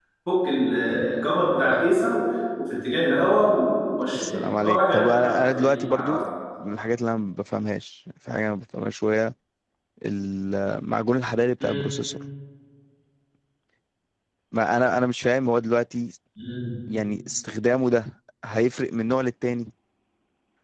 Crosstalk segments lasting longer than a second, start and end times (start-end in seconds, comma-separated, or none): 4.1-6.2